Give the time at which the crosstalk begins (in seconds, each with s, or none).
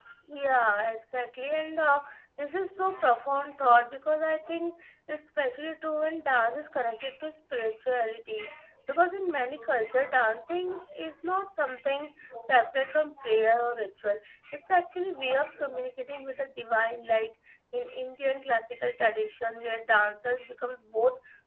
none